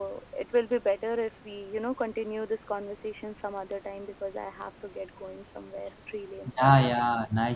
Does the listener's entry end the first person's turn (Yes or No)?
Yes